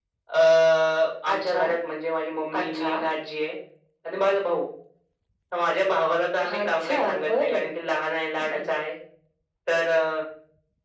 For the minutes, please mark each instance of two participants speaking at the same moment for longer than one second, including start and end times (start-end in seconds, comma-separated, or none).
6.4-7.6